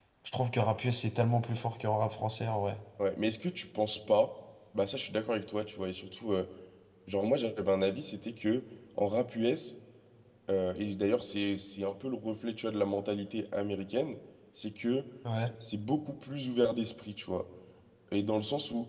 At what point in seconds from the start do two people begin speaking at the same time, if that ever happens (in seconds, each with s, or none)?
none